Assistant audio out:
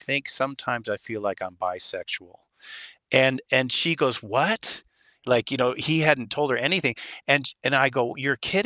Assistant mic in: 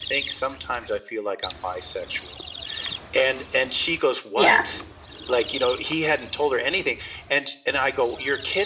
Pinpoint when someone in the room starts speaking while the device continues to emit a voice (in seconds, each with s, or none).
4.3 s